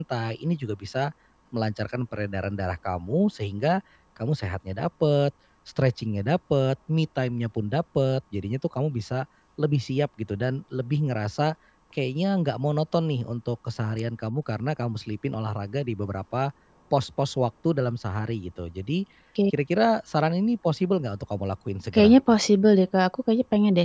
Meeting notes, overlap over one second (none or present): none